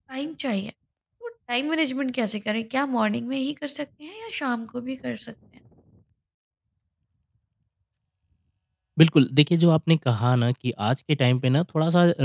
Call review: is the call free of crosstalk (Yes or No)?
Yes